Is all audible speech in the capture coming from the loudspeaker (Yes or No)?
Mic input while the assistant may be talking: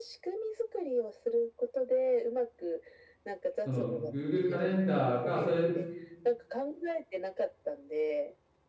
No